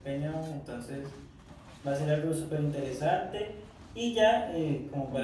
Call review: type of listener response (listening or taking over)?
listening